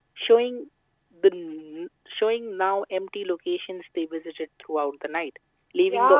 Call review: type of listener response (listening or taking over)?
taking over